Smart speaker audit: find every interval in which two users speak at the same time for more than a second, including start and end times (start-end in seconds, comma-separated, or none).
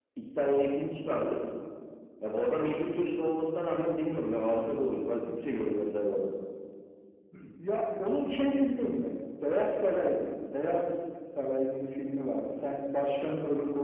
none